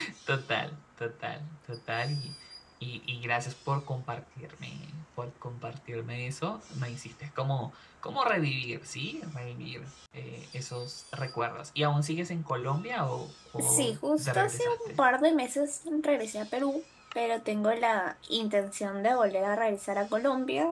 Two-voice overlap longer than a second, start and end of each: 13.6-14.9

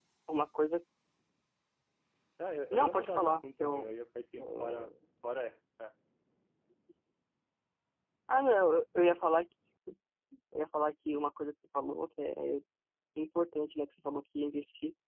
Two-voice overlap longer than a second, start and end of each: 2.7-4.0

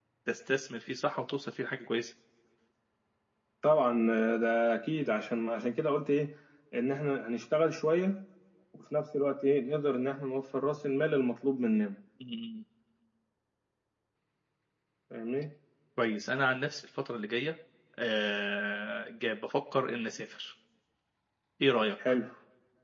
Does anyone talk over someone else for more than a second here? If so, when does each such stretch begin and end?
none

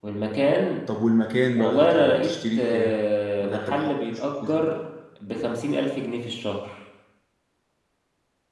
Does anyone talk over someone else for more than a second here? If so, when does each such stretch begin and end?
1.6-3.0, 3.4-4.6

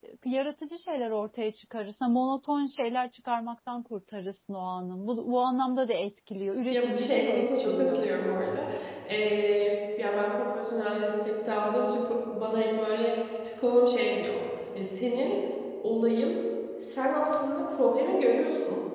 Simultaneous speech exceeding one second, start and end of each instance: 6.7-8.1

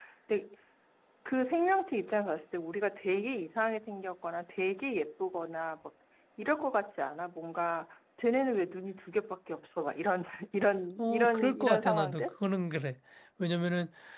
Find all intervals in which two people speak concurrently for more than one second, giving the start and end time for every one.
11.0-12.3

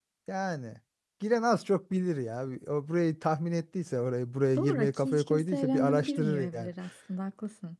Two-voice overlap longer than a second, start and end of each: 4.5-6.7

